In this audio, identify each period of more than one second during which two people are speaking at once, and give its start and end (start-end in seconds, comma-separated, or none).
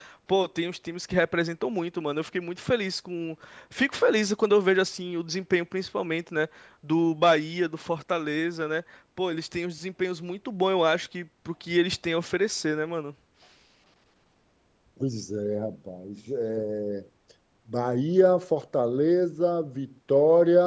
none